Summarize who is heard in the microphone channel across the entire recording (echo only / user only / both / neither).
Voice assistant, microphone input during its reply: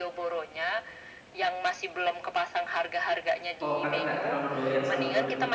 both